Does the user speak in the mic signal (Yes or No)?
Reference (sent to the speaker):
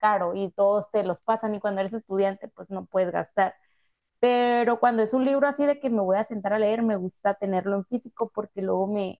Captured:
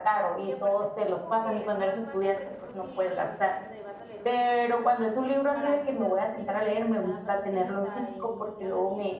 Yes